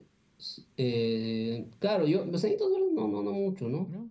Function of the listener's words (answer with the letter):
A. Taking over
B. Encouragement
B